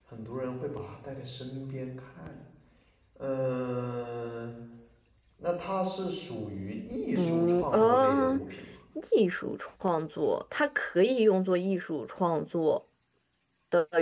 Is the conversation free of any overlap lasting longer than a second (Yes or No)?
No